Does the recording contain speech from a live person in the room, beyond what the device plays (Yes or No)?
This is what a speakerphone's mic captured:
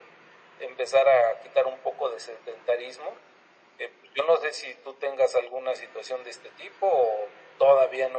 No